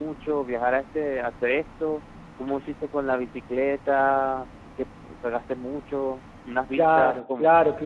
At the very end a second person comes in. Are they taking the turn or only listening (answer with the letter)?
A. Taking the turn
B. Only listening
A